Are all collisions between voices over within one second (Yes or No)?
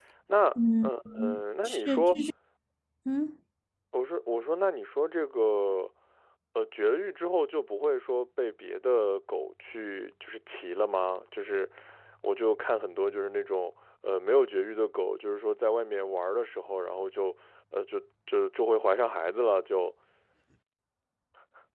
No